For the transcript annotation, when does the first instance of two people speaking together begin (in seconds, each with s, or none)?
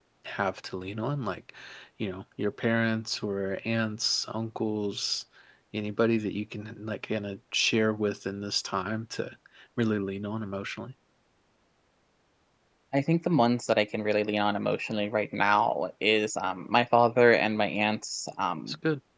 none